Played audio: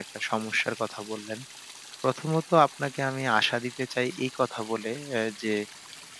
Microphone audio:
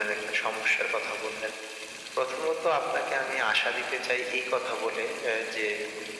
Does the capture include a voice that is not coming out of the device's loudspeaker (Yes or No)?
No